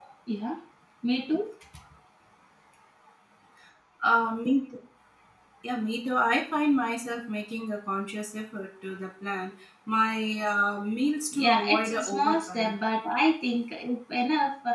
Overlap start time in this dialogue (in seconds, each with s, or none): 11.3 s